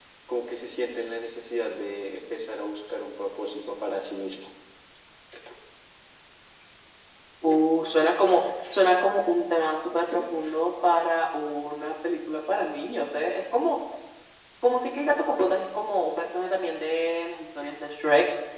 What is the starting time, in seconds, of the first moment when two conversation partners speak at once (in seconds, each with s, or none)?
none